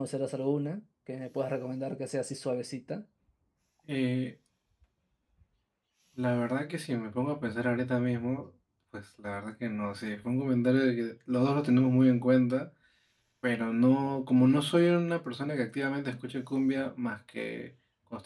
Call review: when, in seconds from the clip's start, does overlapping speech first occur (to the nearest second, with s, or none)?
none